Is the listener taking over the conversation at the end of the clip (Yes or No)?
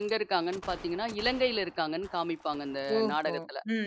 Yes